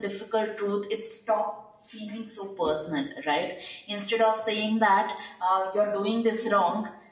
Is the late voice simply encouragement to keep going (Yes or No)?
Yes